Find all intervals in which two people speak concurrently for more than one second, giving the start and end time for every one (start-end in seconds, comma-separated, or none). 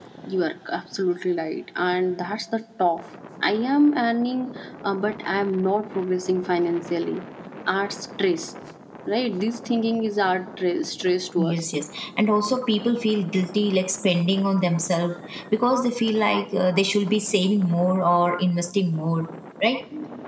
none